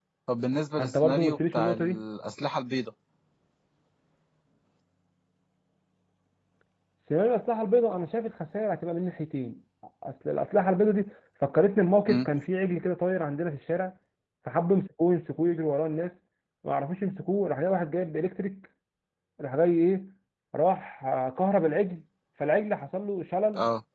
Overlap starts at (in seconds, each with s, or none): 0.8 s